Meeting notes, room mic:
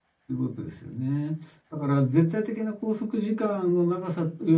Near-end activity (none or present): present